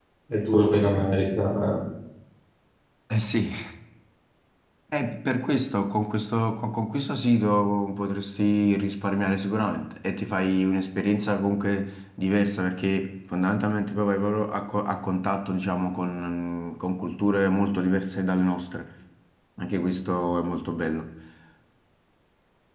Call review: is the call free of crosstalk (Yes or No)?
Yes